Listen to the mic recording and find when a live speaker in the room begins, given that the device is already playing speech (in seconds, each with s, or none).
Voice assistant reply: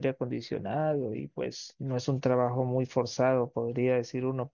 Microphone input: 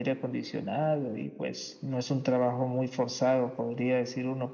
none